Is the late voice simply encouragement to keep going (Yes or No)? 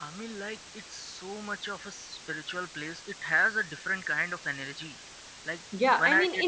No